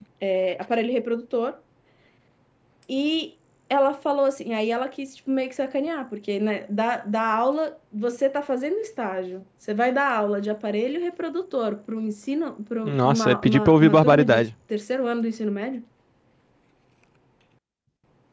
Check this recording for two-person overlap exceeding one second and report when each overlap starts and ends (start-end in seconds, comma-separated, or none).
12.8-14.4